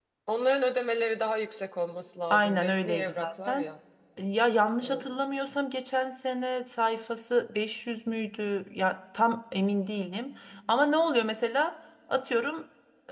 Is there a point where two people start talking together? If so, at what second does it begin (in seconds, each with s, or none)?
2.3 s